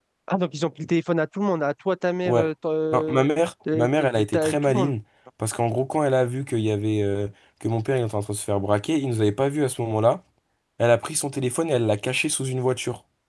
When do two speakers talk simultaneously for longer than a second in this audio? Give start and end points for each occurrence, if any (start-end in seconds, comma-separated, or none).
3.7-4.9